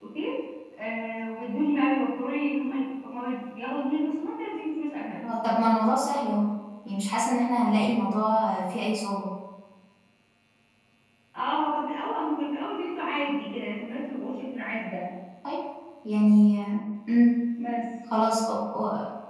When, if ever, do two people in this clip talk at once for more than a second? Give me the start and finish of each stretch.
none

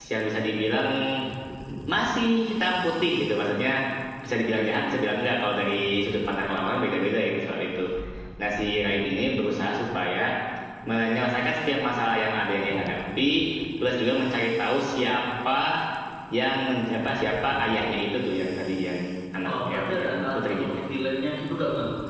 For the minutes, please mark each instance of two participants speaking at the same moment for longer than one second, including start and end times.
19.5-20.9

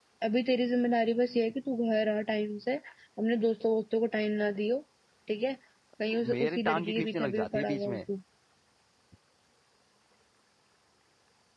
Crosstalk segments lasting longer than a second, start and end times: 6.1-8.0

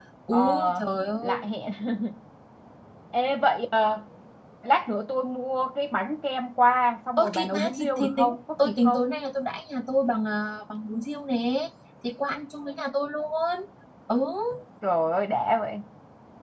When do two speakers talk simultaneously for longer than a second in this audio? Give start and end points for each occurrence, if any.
7.2-9.0

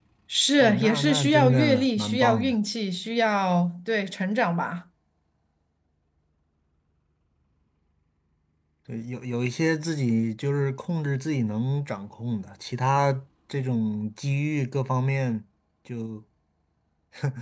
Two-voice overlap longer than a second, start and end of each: 0.6-2.5

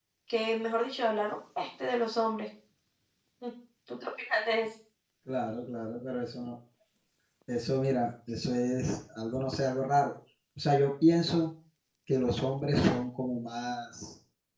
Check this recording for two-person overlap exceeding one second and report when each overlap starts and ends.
none

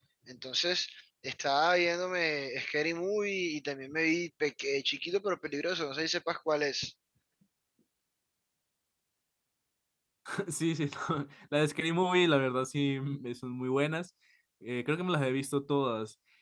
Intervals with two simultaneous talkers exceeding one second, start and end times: none

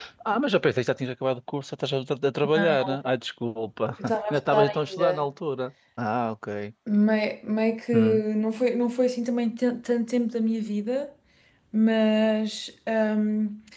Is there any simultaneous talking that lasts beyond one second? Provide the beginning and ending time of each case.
4.0-5.2

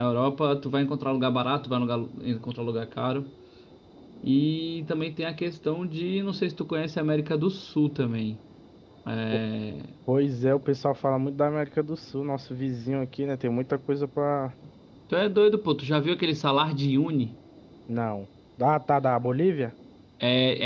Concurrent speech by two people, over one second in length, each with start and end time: none

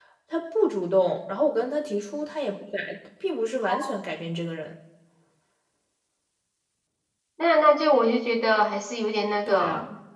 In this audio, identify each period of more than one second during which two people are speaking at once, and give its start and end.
none

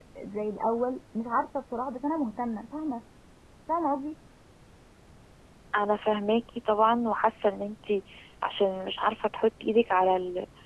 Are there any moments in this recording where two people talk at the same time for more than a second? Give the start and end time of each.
none

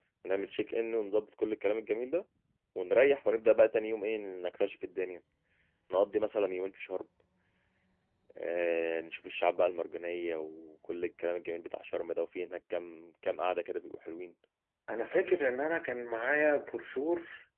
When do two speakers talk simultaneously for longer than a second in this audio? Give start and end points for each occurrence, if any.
none

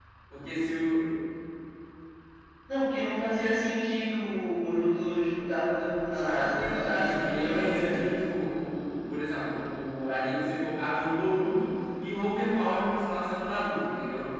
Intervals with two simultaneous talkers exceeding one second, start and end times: 6.1-8.1

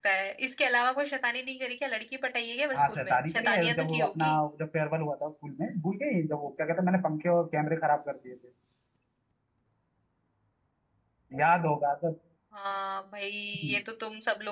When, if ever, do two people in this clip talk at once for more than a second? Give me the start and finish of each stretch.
2.7-4.4

